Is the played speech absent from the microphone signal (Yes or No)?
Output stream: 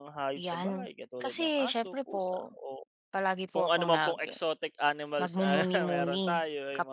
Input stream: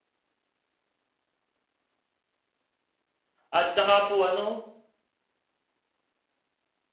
Yes